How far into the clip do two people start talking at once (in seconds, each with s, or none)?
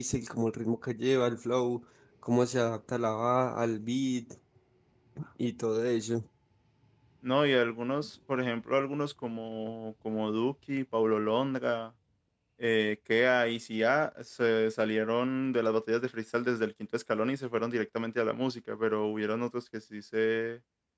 none